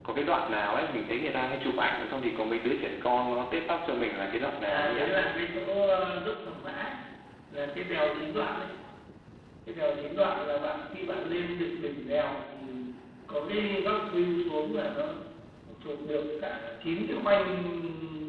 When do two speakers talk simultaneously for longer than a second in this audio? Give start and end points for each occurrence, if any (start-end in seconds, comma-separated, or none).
none